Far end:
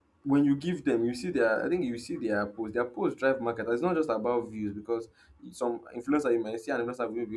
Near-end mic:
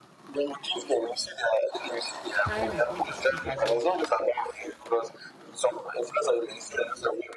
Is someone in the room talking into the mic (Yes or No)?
Yes